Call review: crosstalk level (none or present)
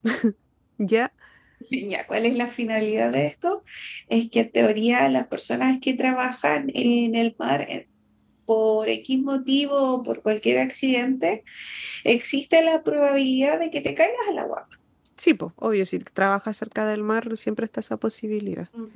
none